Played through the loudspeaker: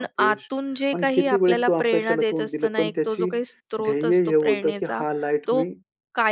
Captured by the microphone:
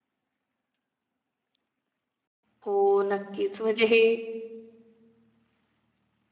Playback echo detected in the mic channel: No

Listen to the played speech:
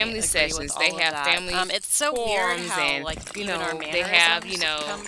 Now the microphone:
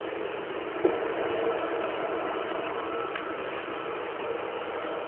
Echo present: No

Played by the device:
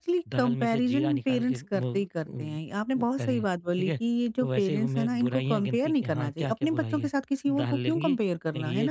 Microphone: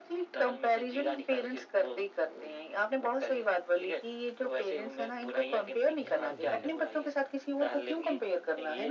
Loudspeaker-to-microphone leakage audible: Yes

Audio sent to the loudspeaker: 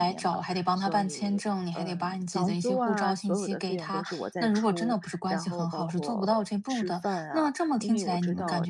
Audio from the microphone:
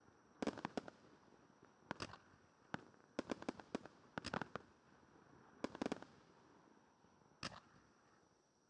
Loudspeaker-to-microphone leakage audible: No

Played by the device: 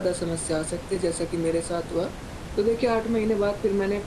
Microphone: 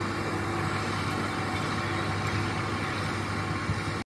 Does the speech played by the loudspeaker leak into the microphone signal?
No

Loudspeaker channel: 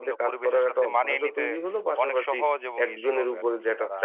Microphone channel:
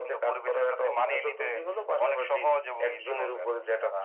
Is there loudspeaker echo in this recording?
Yes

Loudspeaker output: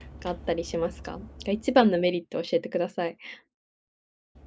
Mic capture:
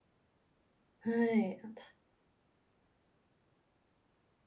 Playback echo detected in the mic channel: No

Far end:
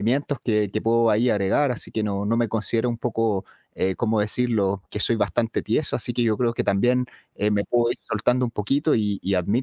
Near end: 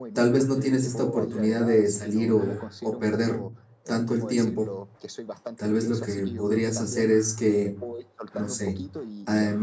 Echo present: Yes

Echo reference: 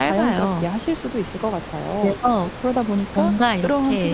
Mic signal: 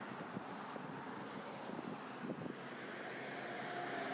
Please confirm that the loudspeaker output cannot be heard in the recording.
Yes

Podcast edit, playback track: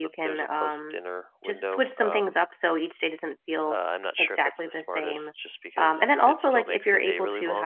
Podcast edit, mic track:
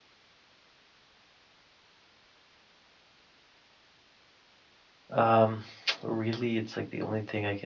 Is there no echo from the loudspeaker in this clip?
Yes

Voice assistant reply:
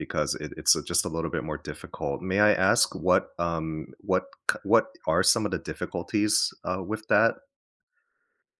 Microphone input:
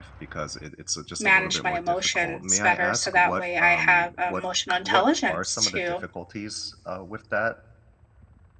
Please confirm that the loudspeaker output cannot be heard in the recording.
No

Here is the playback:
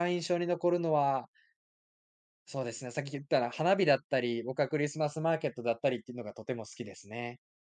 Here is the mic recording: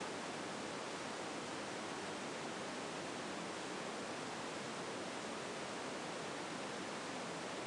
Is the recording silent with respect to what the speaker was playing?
Yes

